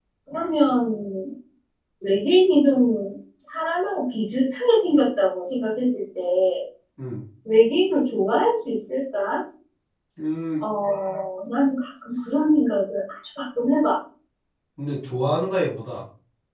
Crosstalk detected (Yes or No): No